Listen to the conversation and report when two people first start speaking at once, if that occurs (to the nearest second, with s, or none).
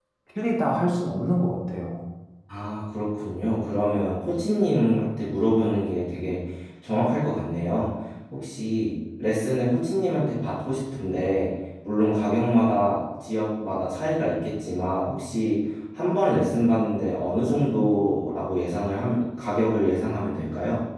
none